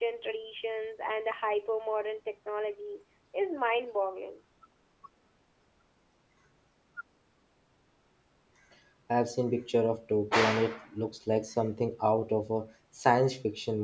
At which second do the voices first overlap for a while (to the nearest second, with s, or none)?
none